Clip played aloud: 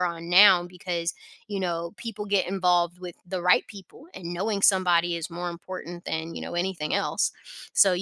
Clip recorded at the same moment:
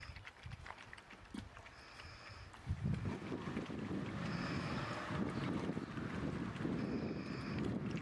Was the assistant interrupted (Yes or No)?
No